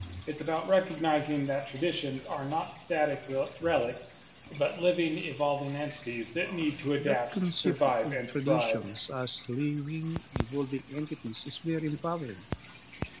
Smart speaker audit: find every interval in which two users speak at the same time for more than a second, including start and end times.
7.0-8.8

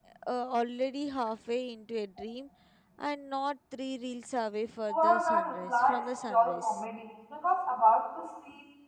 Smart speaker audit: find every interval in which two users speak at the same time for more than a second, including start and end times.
4.9-6.8

